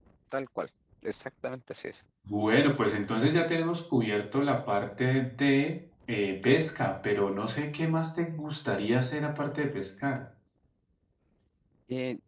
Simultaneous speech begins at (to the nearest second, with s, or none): none